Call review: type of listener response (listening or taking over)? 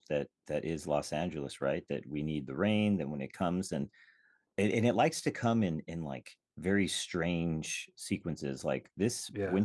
listening